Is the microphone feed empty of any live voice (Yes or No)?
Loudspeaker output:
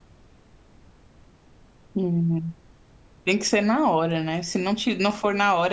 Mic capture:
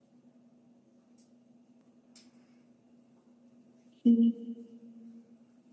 No